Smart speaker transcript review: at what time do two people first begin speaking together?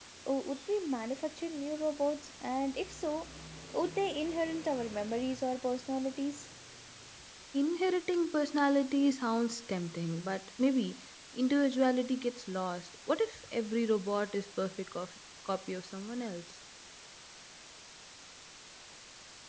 none

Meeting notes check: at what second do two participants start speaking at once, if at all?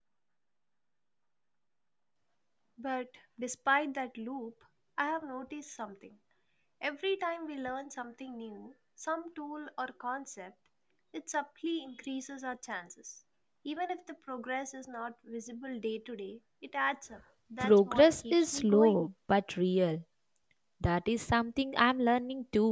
17.6 s

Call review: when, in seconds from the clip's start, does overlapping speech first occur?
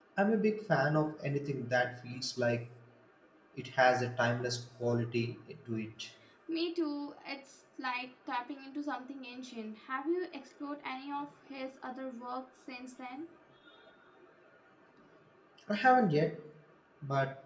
none

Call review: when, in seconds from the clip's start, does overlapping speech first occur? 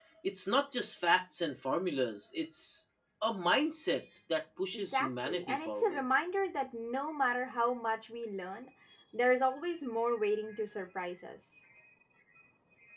4.7 s

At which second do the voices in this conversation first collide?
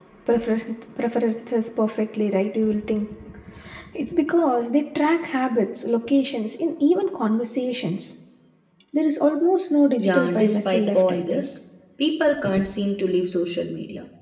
10.0 s

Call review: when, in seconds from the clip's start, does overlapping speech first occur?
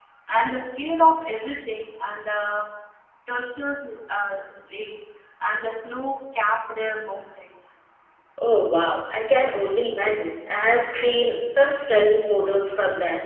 none

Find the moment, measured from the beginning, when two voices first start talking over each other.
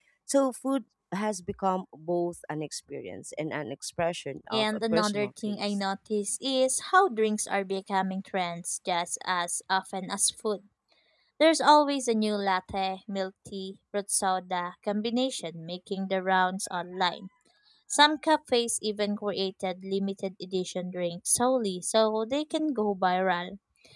4.5 s

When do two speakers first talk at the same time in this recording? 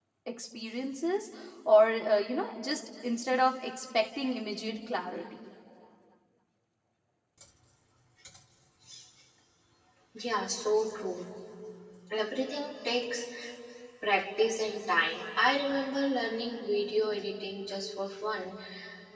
none

